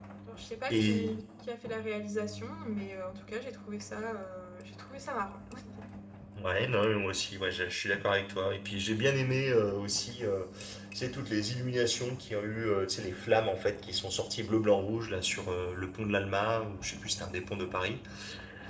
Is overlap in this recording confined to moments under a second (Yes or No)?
Yes